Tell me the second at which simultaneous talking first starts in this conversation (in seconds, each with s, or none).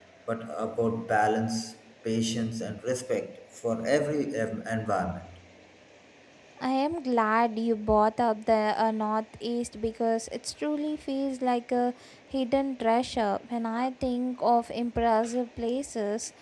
none